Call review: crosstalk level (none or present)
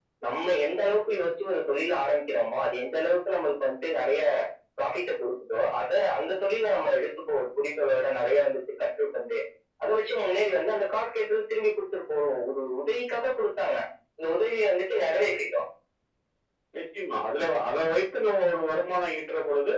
none